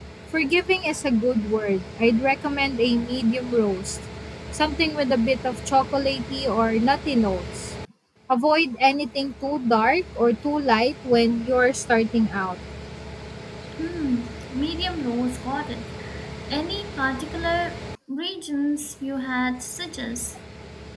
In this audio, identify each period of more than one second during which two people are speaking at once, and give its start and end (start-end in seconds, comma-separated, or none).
none